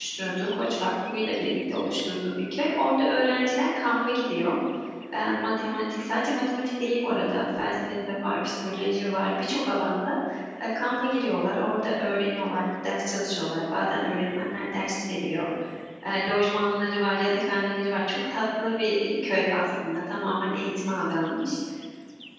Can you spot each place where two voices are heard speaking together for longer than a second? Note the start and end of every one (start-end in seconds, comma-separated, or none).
none